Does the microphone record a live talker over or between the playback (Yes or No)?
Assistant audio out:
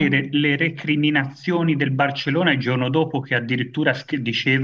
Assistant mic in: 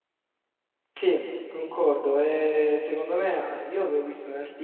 Yes